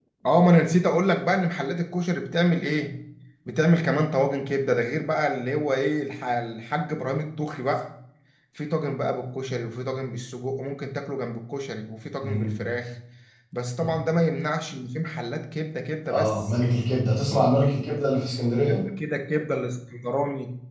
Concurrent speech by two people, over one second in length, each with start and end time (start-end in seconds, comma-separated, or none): none